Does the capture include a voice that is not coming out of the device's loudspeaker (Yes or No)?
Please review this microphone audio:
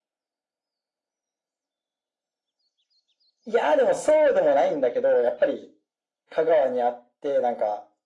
No